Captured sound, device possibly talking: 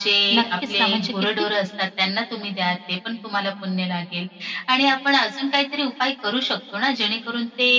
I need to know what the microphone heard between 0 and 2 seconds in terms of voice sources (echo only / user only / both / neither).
both